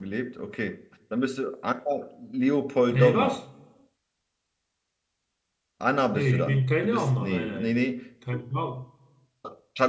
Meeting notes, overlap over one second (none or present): present